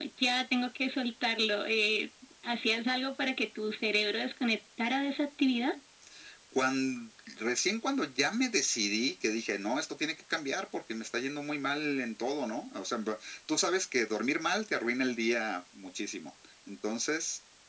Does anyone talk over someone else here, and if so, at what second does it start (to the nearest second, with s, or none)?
none